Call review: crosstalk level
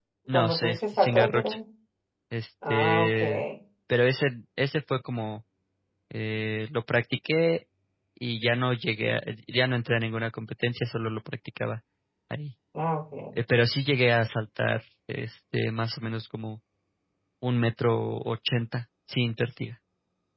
present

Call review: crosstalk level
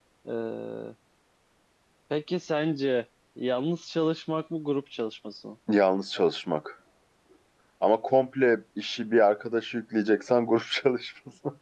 none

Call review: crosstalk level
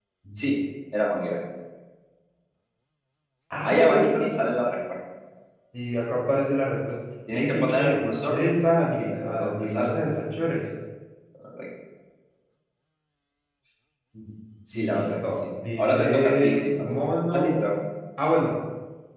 present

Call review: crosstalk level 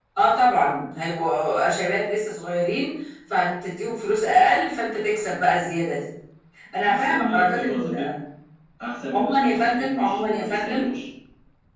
present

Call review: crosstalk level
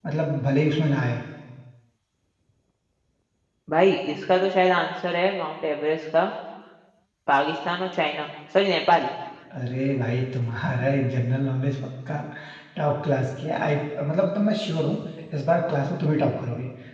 none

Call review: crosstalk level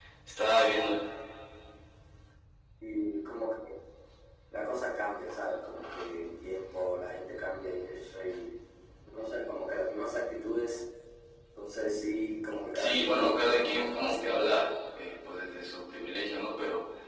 present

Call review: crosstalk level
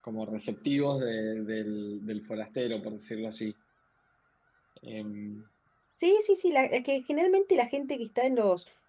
none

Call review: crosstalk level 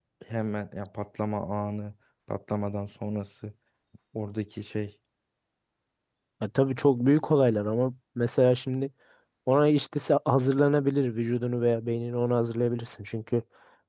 none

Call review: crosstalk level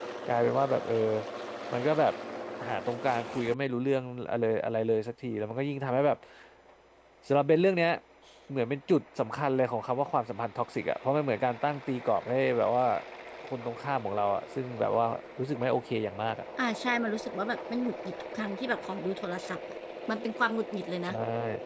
none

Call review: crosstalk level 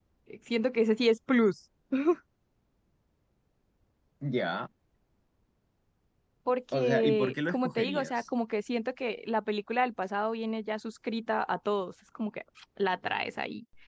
present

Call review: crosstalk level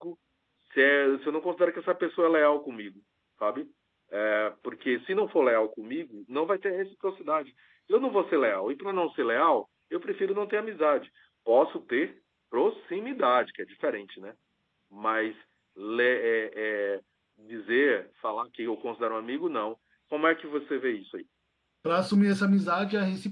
none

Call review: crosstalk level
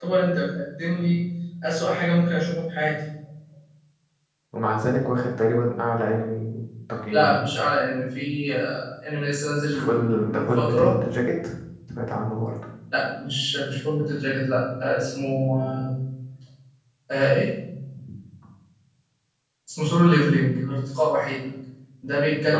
present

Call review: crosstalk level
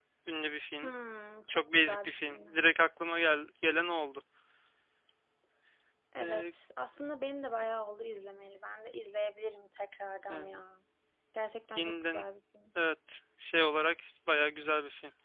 present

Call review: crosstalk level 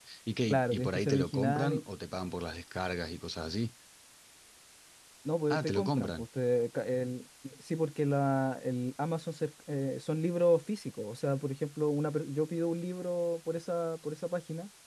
present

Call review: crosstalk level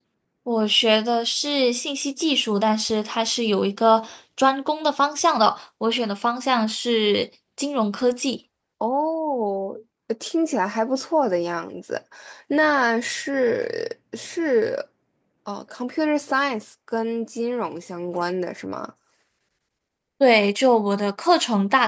none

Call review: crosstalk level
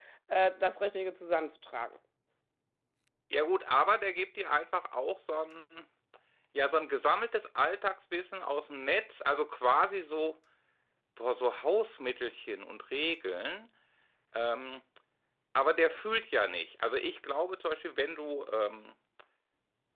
none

